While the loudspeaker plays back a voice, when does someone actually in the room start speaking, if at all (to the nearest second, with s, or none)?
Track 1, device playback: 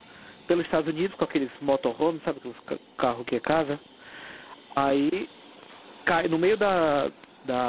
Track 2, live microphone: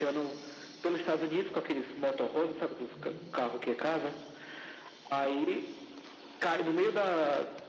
3 s